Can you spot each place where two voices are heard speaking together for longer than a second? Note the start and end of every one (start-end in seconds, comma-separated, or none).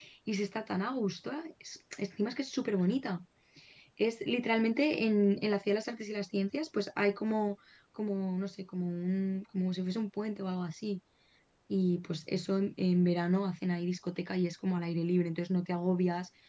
none